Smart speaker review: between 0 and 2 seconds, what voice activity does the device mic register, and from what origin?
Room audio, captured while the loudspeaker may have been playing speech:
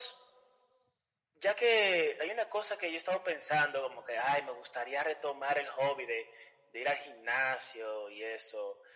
echo only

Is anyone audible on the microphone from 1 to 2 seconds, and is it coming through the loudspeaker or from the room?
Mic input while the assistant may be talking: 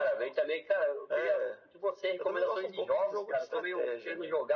echo only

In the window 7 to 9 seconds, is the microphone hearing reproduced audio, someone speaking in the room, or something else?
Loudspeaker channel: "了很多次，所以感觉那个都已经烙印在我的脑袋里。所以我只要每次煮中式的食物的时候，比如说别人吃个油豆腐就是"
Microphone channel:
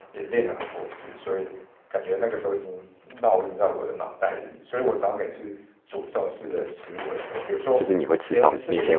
both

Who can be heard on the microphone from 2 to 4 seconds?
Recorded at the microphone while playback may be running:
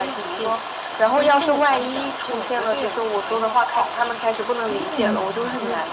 echo only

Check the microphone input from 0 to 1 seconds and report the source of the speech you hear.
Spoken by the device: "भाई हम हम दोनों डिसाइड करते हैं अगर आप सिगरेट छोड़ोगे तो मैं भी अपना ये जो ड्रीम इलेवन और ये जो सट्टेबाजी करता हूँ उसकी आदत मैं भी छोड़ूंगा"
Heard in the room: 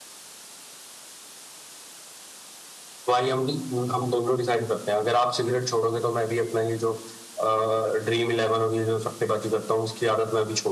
neither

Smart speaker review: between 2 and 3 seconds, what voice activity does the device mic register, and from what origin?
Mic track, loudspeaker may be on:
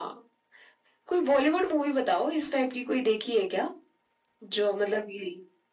echo only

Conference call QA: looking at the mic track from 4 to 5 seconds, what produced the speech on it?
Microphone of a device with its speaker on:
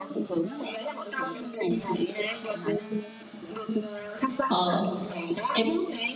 both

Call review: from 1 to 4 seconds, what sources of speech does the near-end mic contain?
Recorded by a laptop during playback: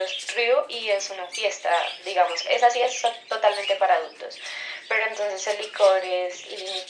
echo only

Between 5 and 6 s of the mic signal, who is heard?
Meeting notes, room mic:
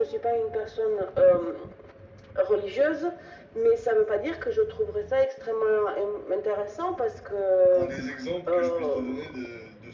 echo only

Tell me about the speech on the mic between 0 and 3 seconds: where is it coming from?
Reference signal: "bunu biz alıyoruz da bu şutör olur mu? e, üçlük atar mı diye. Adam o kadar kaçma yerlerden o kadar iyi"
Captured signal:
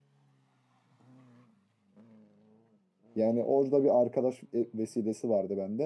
neither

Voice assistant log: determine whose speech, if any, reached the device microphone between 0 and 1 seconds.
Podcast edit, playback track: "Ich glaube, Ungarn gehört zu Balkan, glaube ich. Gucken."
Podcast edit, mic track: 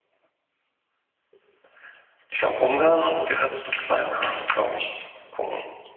neither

